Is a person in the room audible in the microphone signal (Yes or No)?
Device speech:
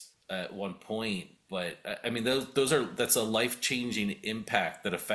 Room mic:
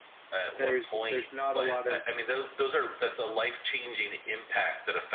Yes